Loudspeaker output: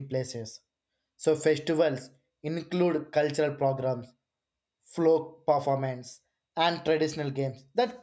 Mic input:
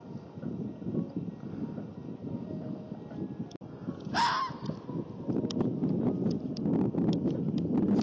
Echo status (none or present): none